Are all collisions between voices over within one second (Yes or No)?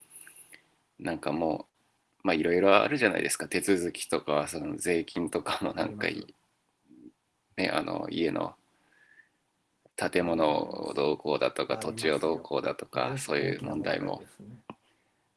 No